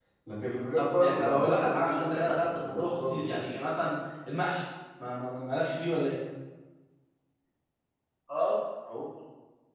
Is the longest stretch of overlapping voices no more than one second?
No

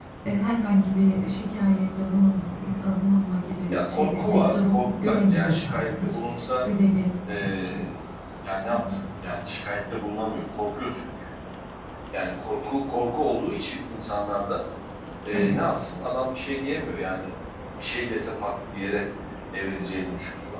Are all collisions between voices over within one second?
No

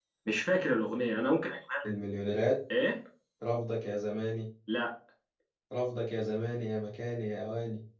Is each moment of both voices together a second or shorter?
Yes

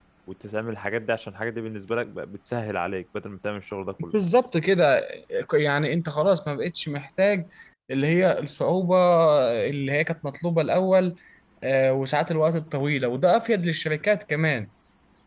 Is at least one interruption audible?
No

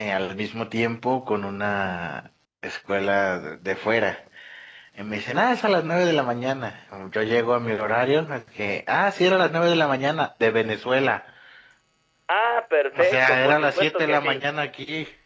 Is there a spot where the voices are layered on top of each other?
Yes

